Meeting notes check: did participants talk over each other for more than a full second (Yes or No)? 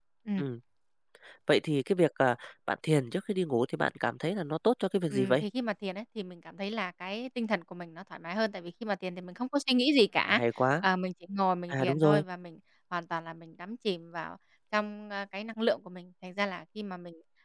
No